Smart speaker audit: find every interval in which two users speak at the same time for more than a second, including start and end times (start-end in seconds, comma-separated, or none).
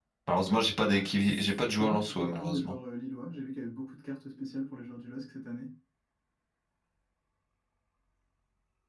0.9-2.7